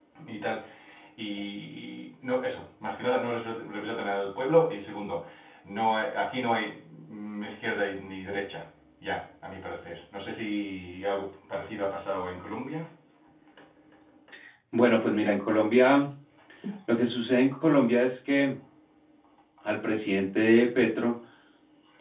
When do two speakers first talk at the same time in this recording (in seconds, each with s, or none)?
none